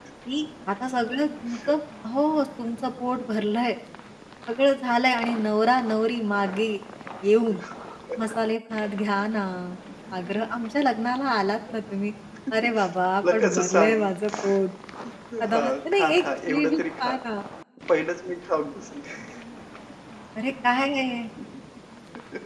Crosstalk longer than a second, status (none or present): present